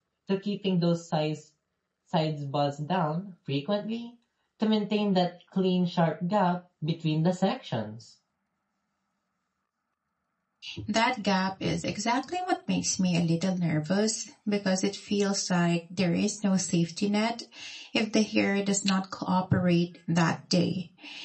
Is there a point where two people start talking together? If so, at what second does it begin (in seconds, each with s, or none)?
none